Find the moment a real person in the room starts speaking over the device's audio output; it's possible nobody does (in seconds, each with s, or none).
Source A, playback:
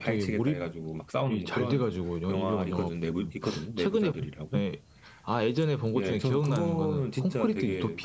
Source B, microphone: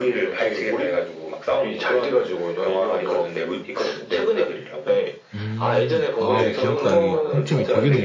5.4 s